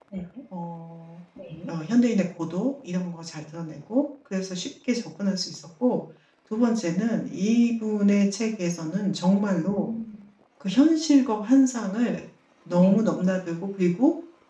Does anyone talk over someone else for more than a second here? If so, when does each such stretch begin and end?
none

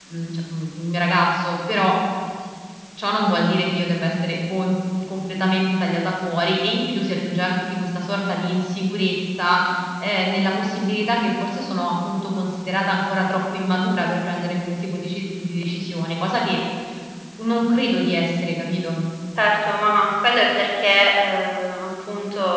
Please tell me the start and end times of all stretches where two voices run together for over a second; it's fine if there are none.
none

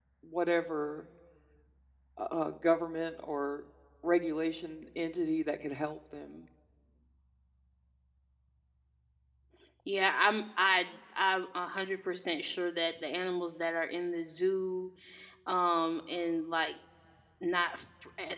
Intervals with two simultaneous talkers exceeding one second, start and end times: none

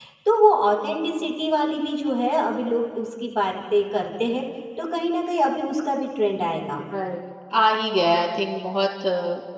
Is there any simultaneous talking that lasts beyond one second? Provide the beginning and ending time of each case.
none

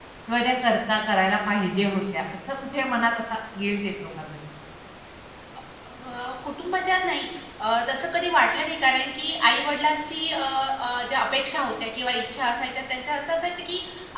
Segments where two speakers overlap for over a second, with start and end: none

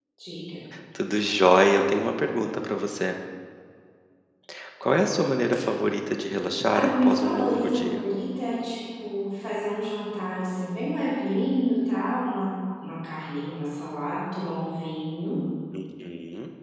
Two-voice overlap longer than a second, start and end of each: 6.7-8.0

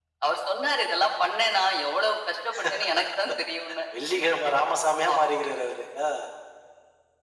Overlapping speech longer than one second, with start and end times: none

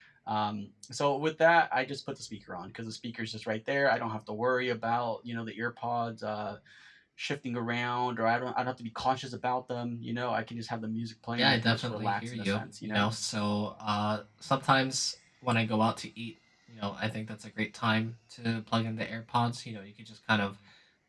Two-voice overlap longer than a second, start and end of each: 11.4-13.1

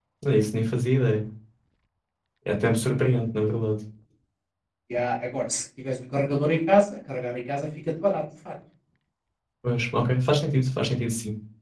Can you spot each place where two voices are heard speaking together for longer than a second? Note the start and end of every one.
none

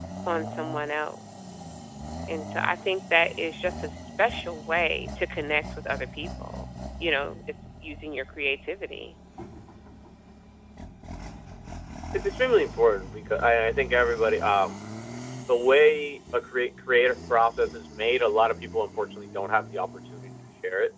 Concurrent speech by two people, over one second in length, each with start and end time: none

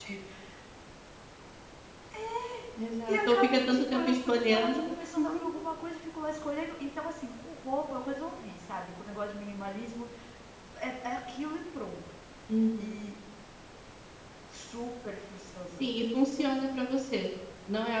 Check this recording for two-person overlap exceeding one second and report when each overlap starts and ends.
3.1-4.8

